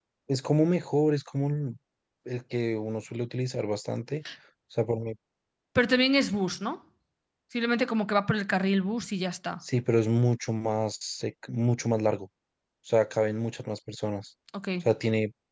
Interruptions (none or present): none